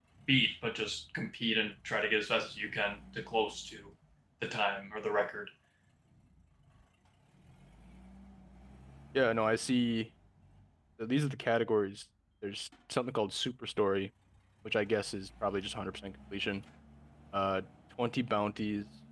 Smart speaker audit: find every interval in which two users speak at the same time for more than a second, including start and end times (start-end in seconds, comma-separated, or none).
none